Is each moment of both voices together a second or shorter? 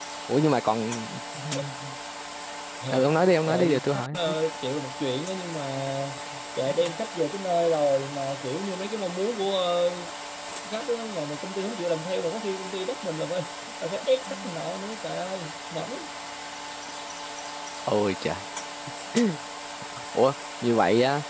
No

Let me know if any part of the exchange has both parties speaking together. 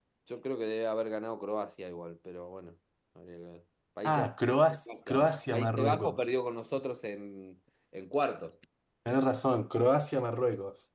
Yes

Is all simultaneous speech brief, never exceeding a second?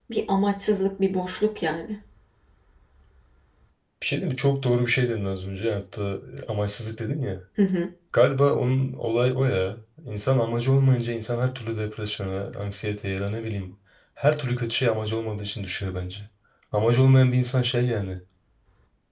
Yes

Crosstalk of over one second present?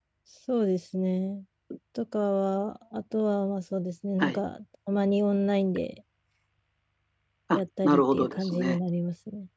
Yes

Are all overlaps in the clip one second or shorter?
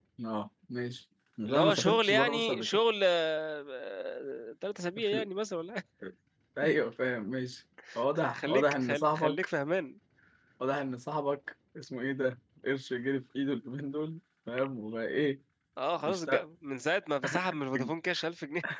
No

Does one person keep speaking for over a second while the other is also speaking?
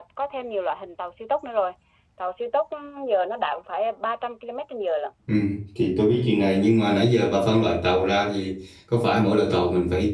No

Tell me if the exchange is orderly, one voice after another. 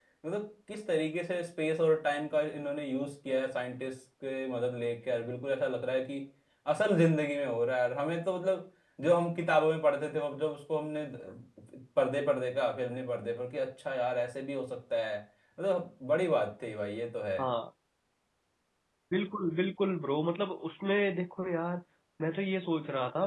Yes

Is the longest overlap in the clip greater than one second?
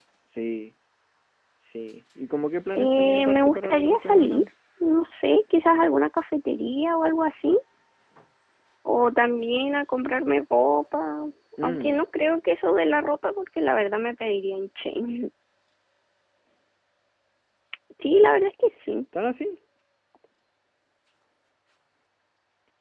Yes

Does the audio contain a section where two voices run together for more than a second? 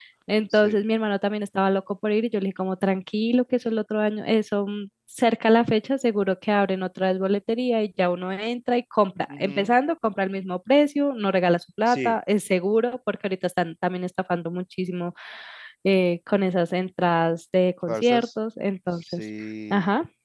No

